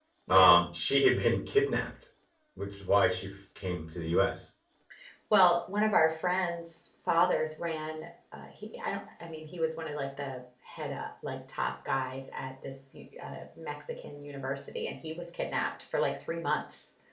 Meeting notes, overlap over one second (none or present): none